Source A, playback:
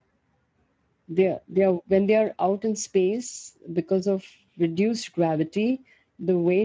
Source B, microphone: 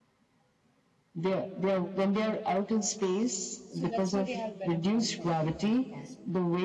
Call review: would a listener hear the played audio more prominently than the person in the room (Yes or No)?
Yes